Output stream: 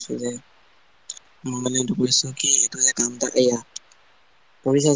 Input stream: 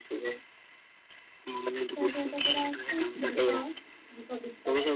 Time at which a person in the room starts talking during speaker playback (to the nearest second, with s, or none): 2 s